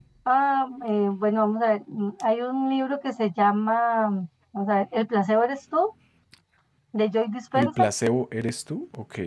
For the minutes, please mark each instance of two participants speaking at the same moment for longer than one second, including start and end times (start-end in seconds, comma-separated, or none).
none